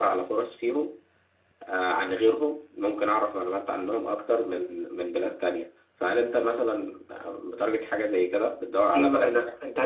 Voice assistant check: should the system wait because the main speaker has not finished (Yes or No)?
No